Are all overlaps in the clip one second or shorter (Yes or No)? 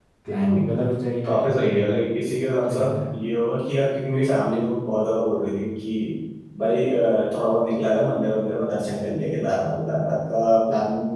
Yes